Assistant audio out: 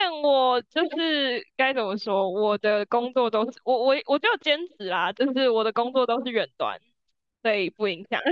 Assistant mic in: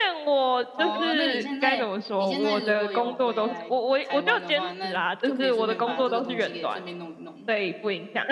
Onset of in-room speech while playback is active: 0.8 s

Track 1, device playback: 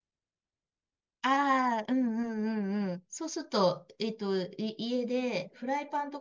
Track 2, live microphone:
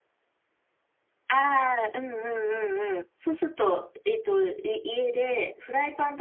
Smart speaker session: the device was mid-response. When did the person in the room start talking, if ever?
none

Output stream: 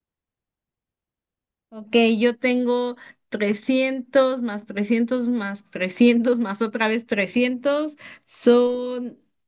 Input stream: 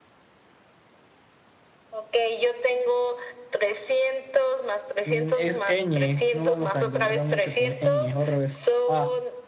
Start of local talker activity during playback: 5.0 s

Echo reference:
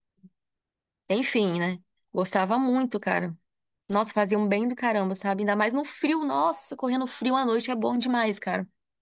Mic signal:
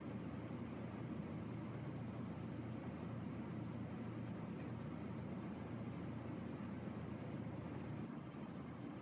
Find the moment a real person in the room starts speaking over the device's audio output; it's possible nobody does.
none

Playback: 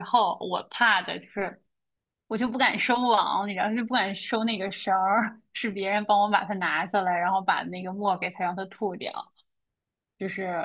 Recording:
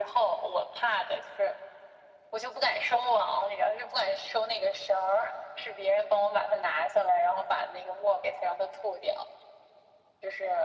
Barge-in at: none

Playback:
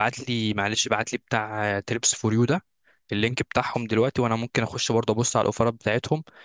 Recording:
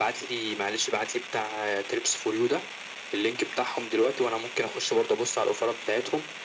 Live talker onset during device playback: none

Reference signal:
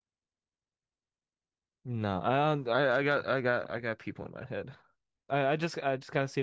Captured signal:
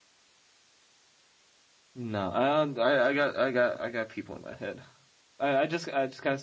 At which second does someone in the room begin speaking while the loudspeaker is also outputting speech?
none

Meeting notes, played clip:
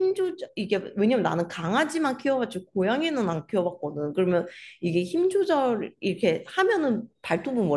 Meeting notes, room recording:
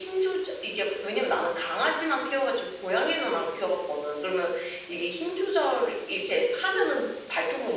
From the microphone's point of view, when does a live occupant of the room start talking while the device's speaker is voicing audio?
none

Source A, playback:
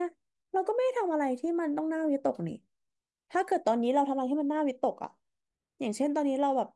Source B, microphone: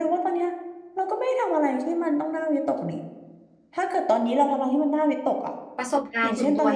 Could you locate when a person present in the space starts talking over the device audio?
5.8 s

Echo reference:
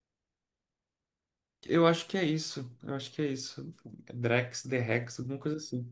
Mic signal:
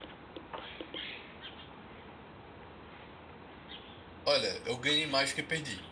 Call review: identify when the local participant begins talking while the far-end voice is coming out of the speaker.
4.2 s

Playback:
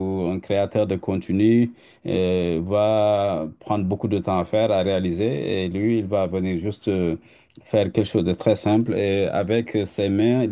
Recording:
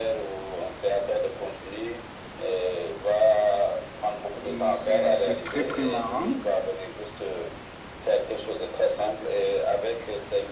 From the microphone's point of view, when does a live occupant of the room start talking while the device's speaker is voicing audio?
4.4 s

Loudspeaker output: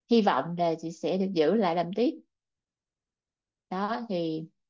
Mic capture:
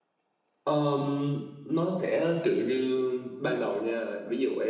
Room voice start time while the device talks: 0.6 s

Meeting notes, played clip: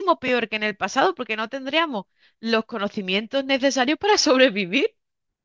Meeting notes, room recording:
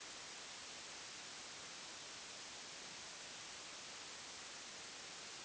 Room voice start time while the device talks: none

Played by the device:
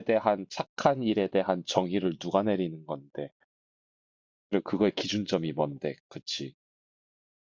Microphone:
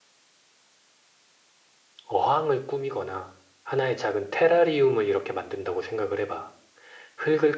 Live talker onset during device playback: 2.1 s

